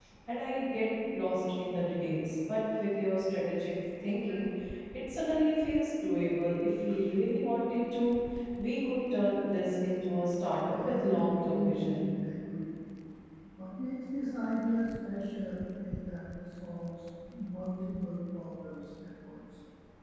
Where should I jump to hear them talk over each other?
10.7 s

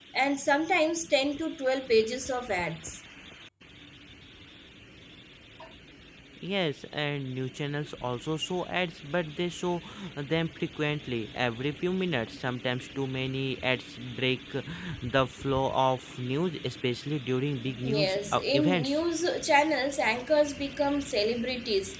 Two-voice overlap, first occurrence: 17.6 s

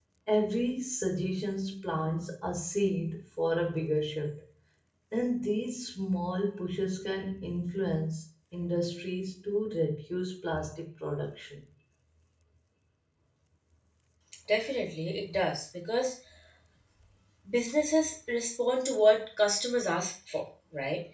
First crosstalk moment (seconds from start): none

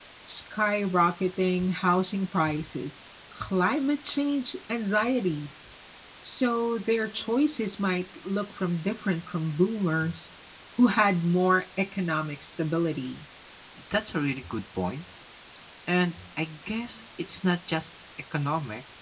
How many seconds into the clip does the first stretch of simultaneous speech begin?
none

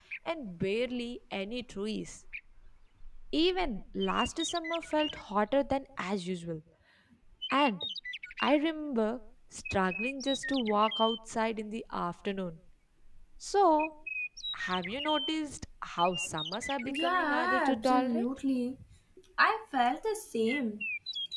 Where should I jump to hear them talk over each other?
16.8 s

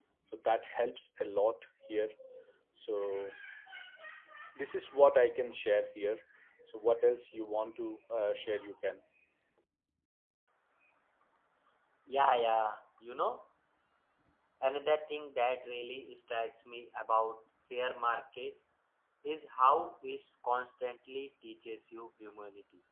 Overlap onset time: none

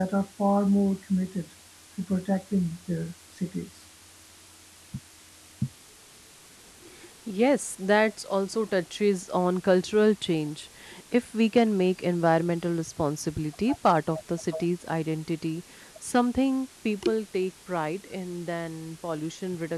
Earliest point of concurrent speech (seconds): none

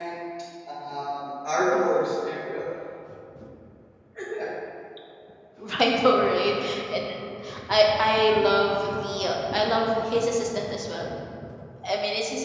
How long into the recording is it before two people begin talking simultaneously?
none

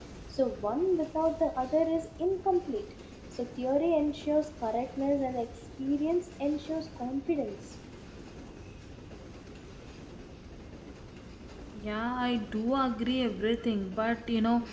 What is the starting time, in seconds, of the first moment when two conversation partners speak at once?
none

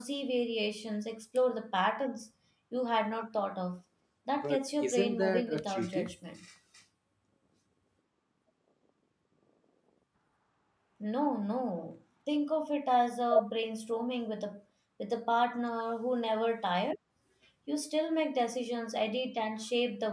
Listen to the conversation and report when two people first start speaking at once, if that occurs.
4.4 s

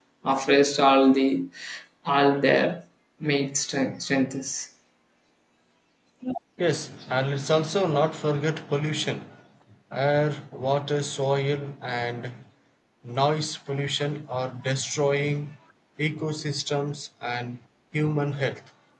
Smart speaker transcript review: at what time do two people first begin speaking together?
none

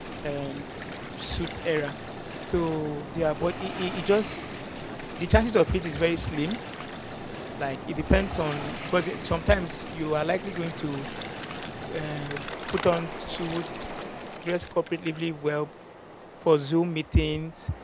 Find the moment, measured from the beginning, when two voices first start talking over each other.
none

